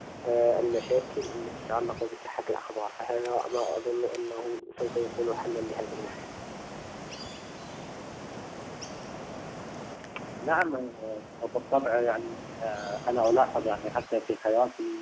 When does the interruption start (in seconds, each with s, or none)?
none